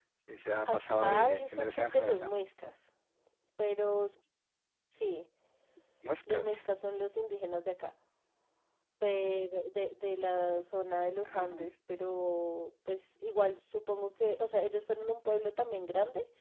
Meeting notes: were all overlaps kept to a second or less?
No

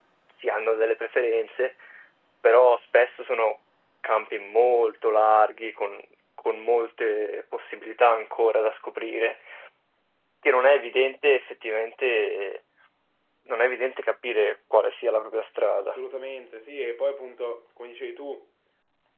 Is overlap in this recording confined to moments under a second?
Yes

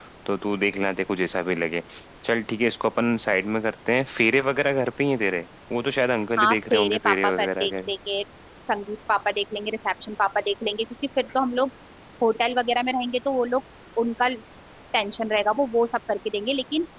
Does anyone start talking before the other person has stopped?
Yes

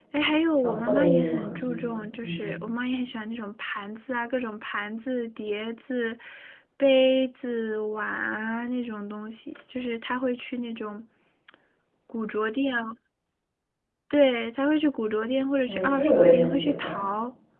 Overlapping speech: Yes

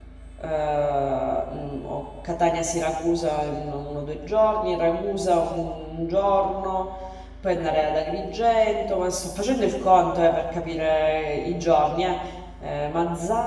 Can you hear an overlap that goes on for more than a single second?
No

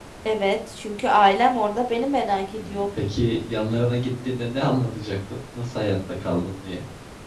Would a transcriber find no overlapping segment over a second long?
Yes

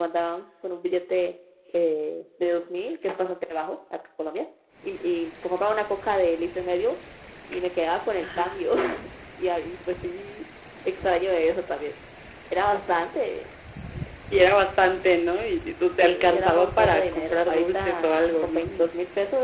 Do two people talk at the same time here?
Yes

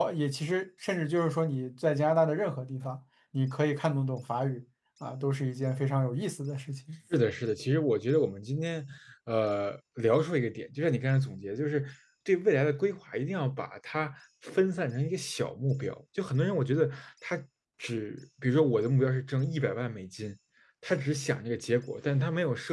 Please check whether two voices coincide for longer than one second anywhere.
No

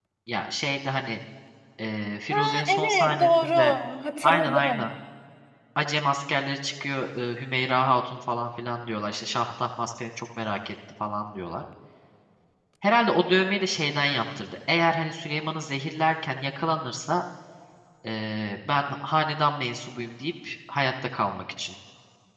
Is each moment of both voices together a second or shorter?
No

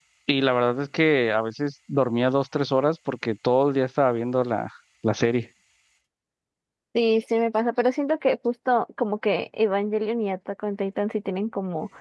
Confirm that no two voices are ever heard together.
Yes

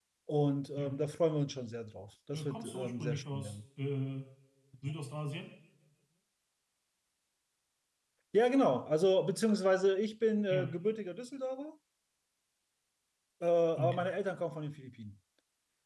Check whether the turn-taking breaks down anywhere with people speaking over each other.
Yes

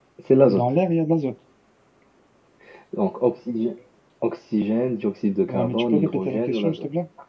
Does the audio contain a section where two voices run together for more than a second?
Yes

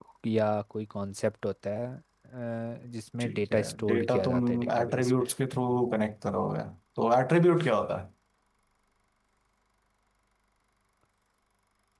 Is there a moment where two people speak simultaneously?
Yes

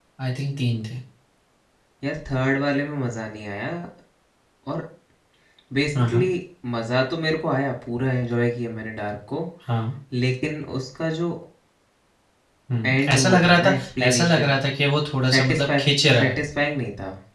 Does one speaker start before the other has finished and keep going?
Yes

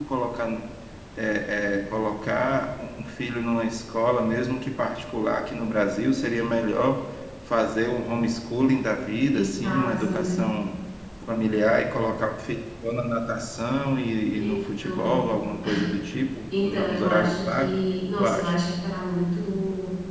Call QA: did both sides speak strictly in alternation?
No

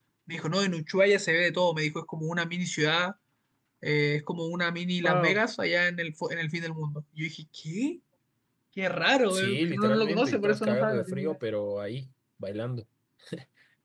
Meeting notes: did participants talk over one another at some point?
Yes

